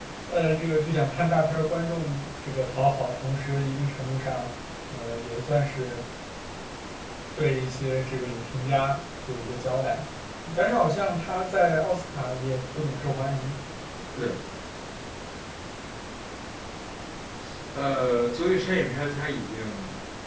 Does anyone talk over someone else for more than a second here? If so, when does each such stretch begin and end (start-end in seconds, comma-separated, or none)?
none